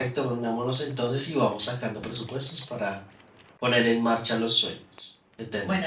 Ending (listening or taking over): taking over